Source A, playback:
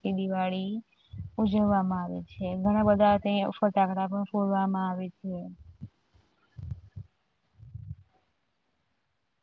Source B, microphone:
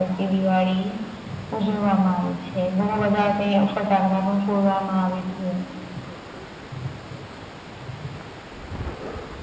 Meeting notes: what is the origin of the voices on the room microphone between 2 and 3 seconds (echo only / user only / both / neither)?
echo only